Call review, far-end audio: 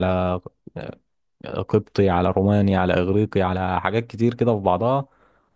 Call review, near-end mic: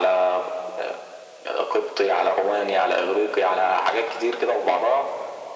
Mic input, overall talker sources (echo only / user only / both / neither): echo only